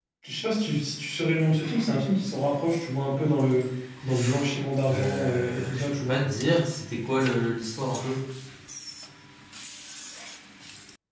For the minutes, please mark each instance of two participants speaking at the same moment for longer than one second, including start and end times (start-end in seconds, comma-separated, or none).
4.9-6.2